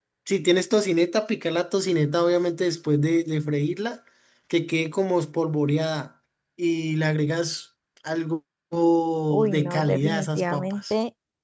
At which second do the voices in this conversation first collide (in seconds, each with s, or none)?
9.5 s